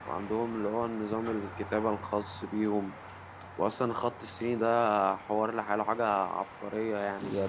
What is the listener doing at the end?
taking over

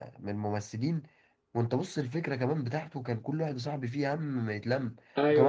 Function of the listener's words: taking over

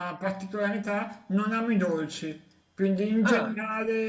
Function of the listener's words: listening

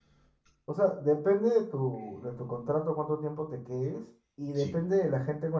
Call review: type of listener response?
listening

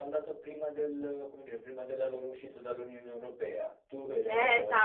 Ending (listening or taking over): taking over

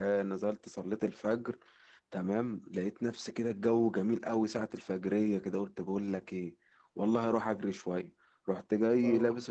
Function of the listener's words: listening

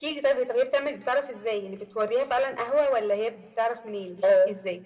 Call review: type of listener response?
taking over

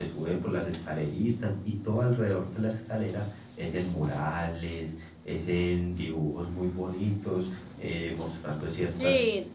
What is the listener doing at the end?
taking over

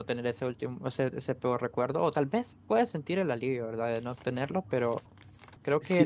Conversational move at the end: taking over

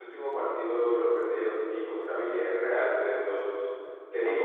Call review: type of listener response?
listening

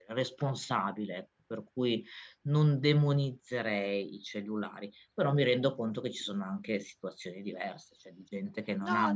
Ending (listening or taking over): listening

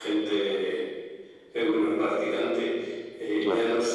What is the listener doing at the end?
listening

